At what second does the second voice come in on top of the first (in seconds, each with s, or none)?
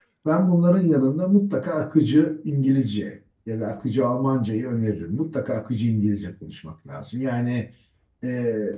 none